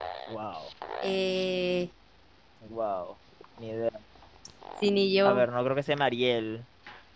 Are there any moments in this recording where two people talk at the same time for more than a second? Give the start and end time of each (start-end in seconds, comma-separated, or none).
none